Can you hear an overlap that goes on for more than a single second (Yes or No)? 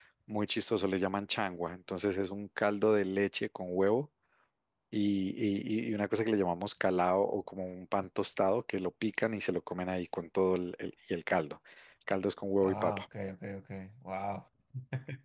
No